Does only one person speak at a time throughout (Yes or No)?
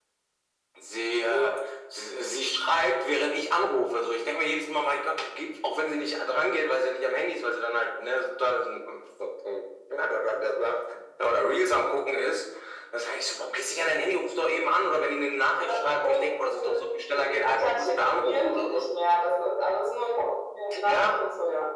No